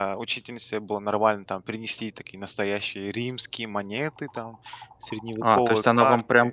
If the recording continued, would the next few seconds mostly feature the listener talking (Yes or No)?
Yes